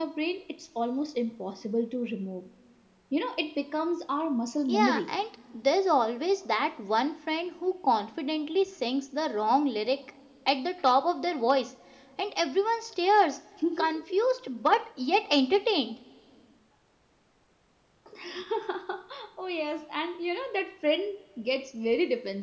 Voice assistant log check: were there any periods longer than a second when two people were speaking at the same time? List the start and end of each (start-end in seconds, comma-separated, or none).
none